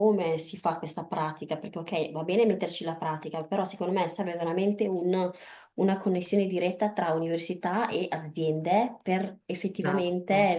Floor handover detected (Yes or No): No